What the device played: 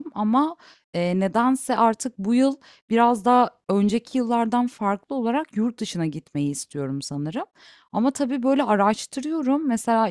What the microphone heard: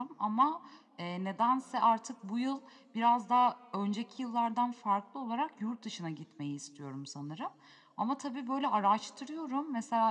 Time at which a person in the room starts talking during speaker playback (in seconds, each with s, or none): none